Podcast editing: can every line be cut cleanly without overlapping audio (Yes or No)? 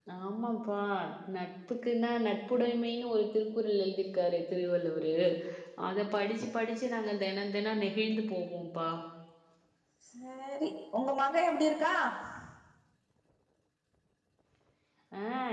Yes